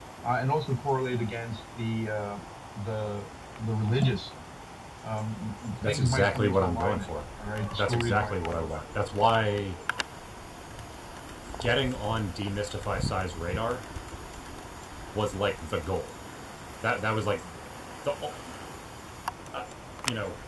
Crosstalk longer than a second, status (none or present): present